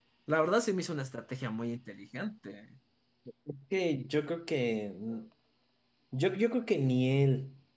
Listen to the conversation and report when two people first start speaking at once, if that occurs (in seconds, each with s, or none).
none